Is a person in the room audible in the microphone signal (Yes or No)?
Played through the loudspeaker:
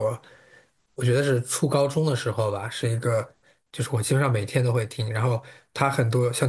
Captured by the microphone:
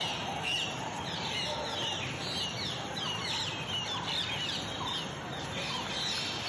No